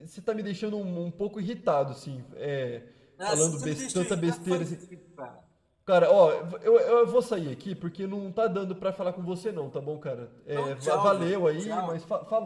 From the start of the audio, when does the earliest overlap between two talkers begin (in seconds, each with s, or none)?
3.3 s